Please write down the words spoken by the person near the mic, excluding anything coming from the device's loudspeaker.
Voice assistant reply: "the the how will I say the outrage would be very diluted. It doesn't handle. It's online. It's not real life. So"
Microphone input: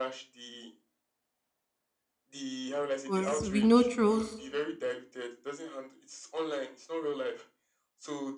Because we know trolls

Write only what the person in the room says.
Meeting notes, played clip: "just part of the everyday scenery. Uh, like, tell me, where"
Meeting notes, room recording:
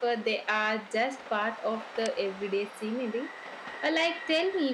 none

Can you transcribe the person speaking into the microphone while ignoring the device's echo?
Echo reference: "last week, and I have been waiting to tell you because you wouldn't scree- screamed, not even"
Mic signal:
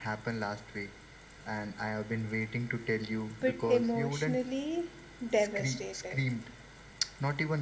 but emotionally devastating.

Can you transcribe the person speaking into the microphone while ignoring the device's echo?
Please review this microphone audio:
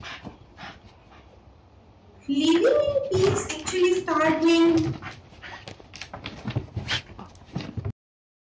Living in peace actually start with

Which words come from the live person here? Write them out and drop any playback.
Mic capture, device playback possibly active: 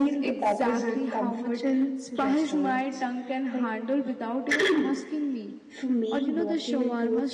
none

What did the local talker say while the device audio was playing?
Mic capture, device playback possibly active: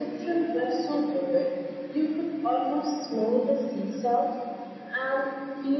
none

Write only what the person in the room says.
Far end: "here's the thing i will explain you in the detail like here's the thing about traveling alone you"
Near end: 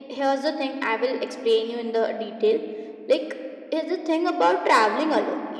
none

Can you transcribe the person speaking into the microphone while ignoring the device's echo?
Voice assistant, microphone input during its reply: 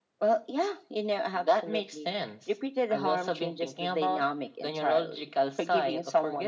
none

